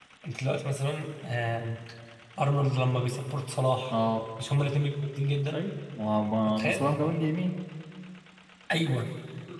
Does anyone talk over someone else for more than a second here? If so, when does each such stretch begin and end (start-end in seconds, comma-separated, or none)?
none